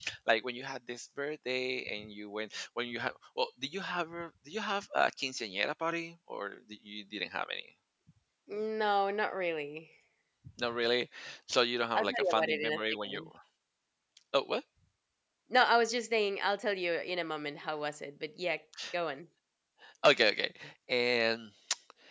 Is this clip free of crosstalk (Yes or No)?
No